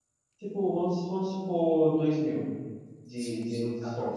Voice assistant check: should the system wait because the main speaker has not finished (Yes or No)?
No